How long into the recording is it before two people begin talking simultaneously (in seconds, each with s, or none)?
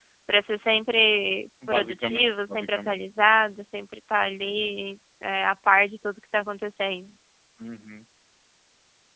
1.6 s